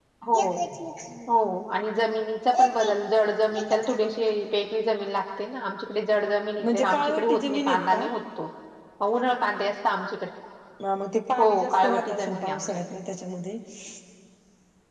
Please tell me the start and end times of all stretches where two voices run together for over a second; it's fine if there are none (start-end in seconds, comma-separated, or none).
6.6-8.1, 11.4-13.0